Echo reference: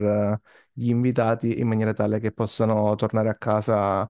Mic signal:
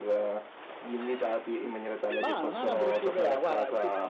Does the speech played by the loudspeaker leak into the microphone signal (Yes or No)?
Yes